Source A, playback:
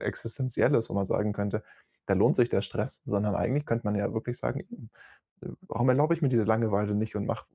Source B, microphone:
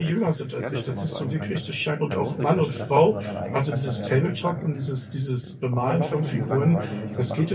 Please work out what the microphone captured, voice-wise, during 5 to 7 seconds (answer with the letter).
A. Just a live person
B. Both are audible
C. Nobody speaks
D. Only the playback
B